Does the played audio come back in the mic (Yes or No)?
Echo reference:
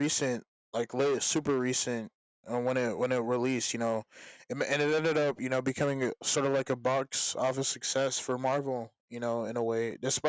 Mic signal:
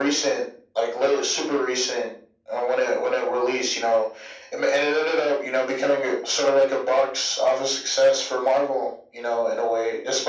Yes